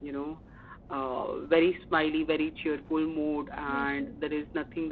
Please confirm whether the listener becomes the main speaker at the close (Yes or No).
No